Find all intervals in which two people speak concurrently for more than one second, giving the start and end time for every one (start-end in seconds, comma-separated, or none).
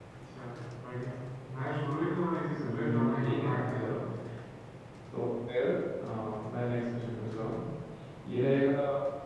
2.6-4.1